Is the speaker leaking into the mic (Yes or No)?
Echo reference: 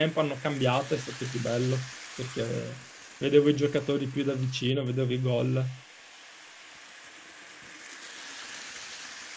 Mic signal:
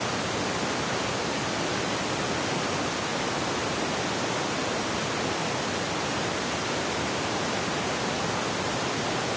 No